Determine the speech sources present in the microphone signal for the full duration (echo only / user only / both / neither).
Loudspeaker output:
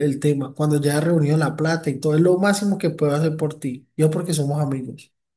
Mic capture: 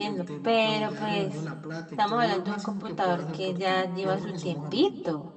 both